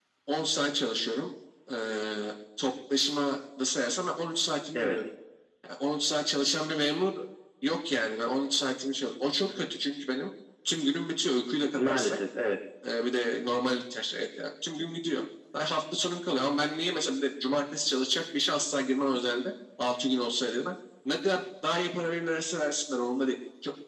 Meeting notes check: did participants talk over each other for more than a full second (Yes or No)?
No